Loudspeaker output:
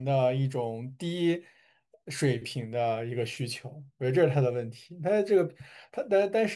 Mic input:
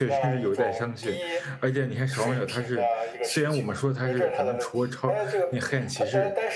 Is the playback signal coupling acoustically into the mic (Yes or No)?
Yes